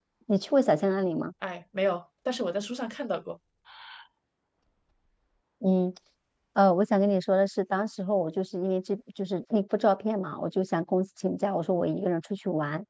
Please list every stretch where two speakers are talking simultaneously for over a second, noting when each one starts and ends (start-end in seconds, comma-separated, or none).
none